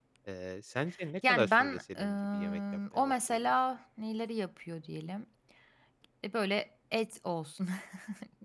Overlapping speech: Yes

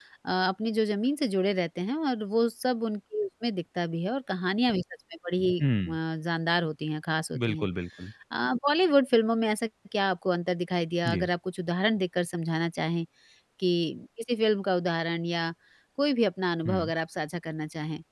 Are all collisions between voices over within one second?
Yes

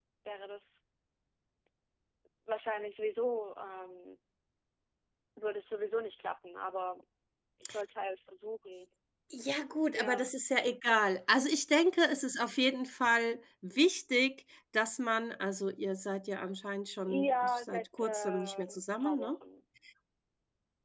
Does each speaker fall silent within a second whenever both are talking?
No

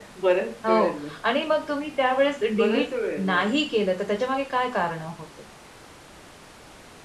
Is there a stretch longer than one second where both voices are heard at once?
No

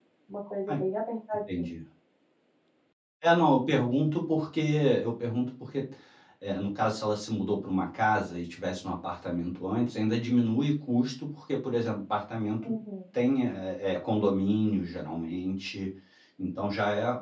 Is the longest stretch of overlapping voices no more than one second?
Yes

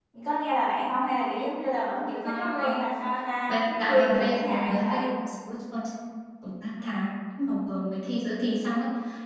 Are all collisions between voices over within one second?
No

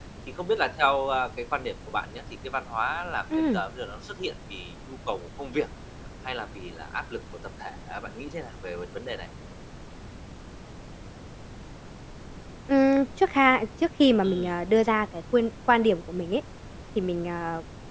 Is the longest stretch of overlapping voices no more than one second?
Yes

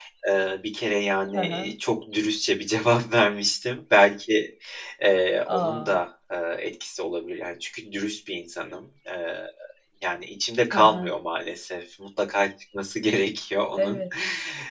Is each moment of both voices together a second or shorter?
Yes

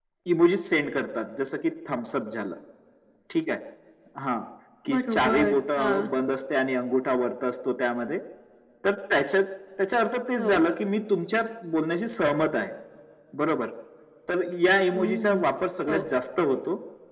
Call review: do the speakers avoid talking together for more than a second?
No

